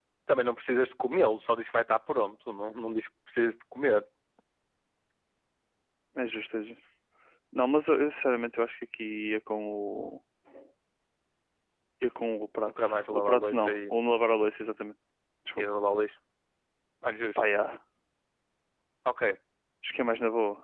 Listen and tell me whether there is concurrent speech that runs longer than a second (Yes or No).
Yes